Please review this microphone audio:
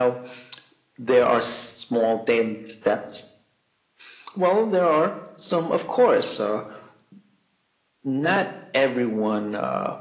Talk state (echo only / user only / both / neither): echo only